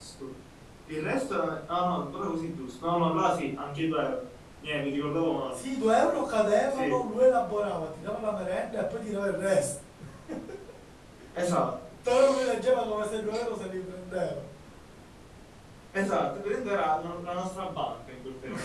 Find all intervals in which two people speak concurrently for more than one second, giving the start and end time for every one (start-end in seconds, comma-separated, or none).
none